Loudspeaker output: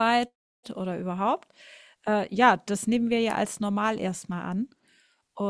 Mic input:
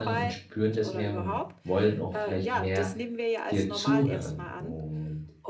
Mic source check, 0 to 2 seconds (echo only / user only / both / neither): both